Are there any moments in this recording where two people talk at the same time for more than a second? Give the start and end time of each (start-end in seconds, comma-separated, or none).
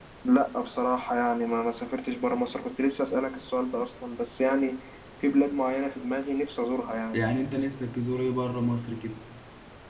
none